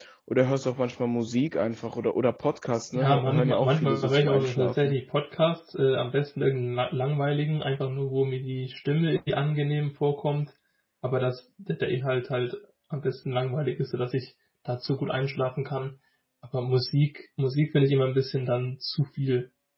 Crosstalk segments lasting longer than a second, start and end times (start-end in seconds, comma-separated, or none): 3.0-4.9